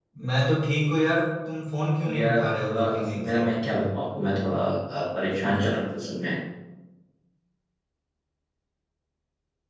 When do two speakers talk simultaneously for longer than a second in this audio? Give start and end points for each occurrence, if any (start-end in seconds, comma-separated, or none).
2.0-3.4